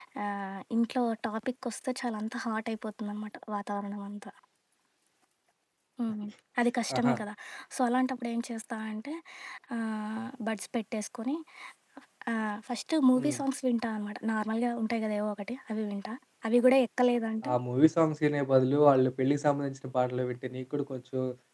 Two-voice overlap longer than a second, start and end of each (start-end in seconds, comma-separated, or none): none